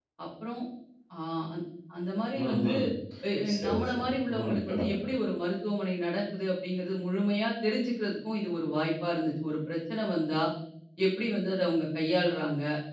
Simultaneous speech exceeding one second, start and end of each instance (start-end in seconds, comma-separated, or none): 3.5-5.0